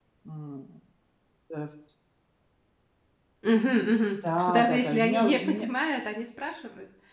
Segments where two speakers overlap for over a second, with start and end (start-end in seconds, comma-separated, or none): 4.4-5.7